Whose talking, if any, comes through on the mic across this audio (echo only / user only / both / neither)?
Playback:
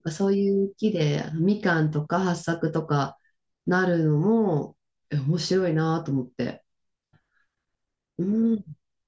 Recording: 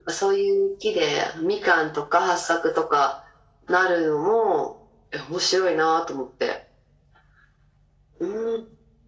echo only